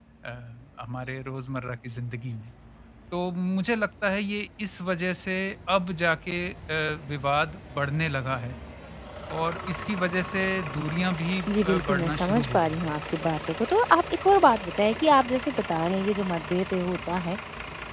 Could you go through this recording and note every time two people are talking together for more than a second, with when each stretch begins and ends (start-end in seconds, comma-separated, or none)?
11.5-12.9